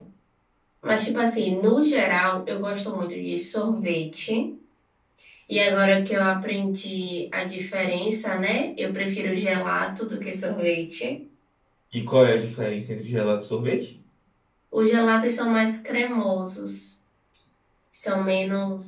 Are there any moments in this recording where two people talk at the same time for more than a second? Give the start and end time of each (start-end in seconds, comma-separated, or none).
none